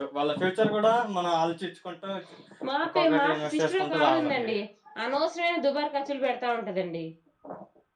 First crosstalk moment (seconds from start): 2.9 s

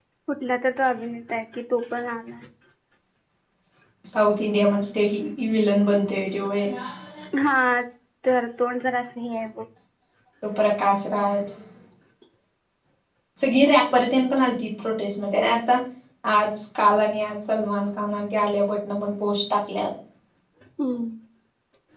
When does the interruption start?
none

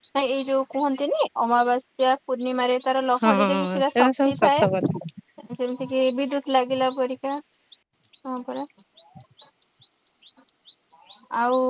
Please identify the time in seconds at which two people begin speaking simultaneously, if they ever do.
3.2 s

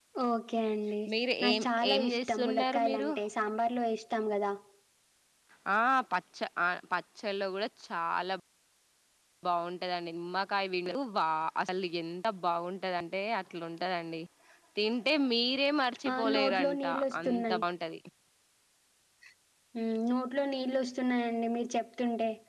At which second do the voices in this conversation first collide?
1.4 s

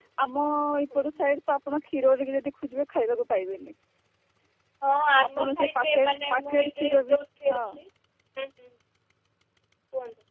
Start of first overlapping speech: 5.3 s

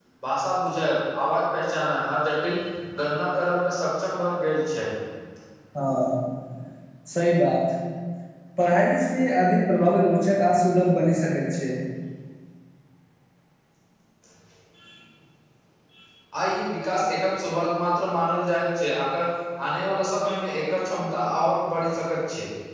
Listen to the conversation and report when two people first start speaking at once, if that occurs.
none

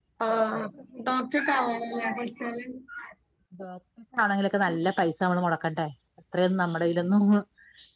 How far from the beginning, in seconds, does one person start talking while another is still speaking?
none

